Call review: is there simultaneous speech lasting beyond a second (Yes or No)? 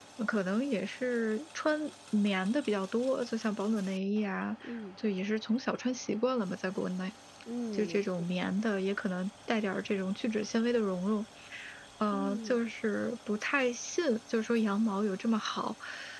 No